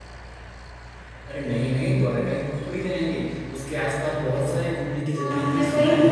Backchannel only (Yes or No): No